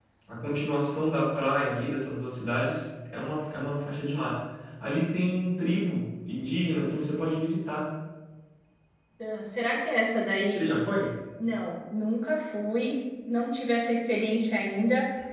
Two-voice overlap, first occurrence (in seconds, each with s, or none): none